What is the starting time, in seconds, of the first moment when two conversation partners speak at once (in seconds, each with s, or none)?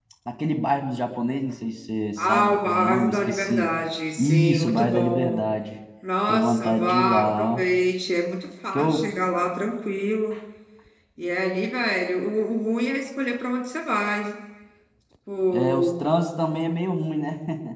2.2 s